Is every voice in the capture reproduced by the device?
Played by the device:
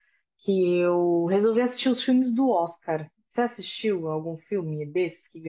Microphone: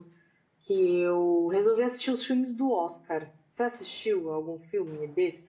Yes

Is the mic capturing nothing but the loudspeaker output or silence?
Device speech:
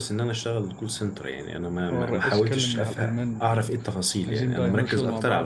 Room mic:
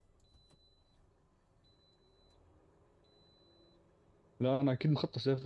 No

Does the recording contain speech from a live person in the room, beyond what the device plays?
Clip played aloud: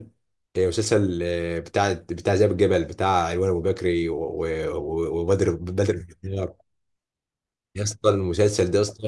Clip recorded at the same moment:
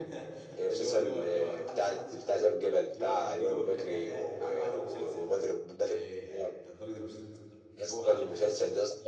Yes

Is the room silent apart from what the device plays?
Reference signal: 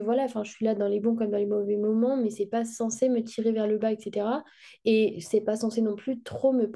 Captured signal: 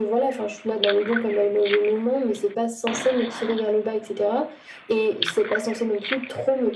Yes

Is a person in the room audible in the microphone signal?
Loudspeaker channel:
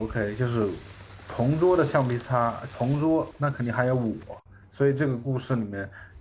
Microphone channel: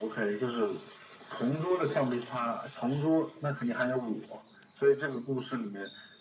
No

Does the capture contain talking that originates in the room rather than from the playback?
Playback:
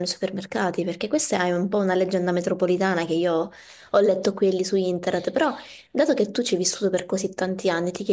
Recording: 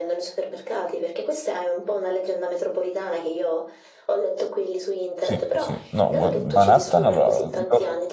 Yes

